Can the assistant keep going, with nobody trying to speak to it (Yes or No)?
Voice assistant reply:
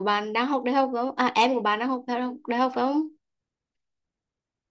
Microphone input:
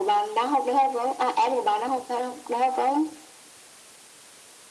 Yes